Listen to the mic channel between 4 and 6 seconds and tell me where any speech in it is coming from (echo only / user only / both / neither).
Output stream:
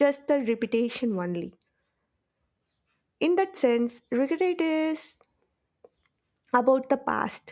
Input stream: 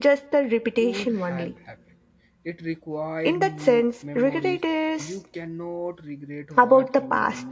both